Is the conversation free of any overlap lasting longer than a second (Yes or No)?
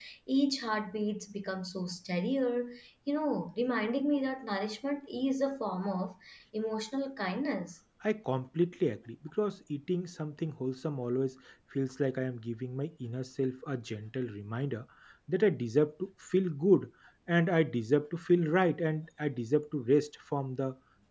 Yes